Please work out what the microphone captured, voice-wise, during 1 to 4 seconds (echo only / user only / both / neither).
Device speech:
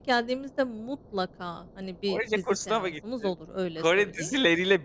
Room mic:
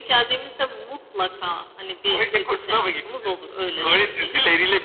echo only